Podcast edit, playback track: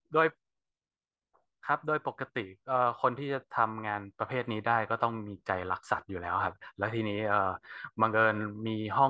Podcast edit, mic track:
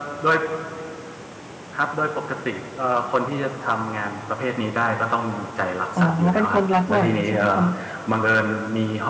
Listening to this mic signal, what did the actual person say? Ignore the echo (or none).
อ๋อเป็นคนรักหมาใช่ไหมคะ